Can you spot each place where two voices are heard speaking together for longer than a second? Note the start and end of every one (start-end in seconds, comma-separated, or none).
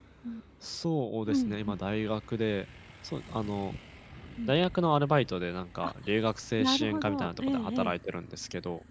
6.6-7.9